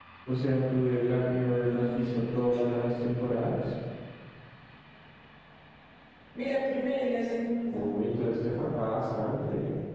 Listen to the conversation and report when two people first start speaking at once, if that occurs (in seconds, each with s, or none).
1.6 s